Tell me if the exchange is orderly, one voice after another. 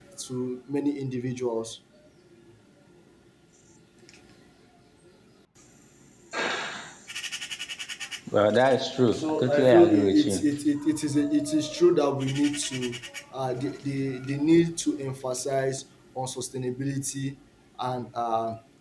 No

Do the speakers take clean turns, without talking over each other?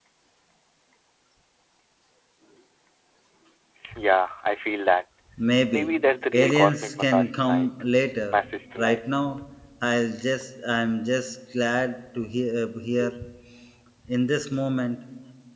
No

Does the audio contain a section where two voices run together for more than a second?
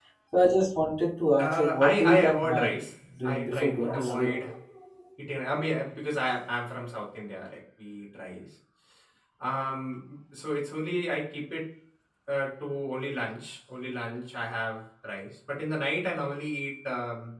Yes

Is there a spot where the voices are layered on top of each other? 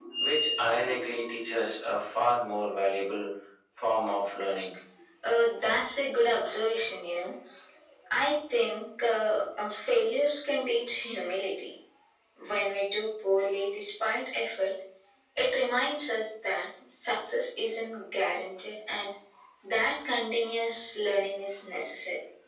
No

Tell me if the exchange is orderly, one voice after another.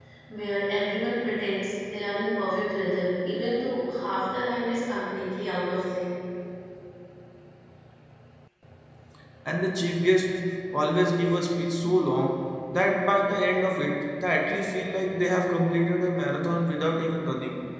Yes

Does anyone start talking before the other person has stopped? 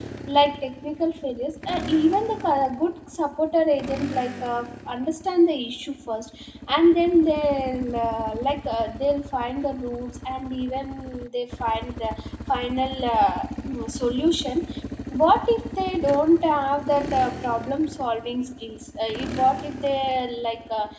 No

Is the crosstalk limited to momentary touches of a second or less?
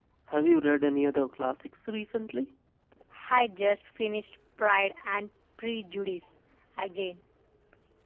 Yes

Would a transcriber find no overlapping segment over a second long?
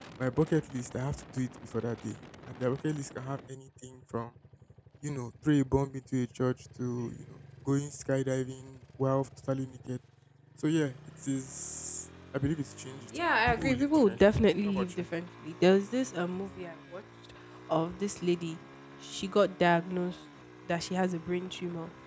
No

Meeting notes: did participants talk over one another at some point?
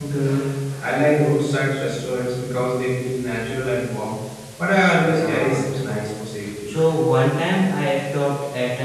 Yes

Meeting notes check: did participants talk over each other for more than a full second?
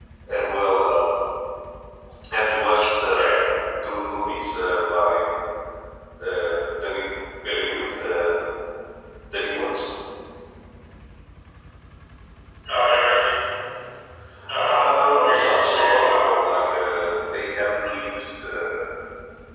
Yes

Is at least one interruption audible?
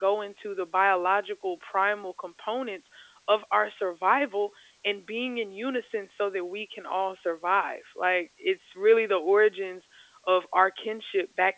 No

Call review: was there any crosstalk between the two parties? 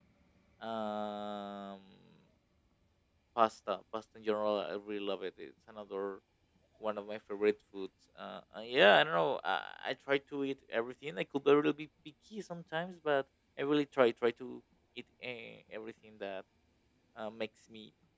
No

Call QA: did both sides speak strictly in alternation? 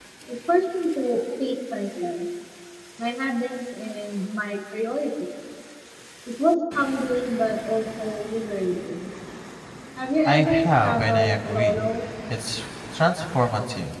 No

